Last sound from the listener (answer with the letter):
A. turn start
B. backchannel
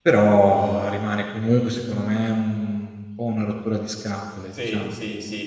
A